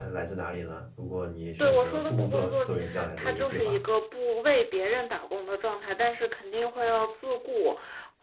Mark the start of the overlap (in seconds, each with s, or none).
1.6 s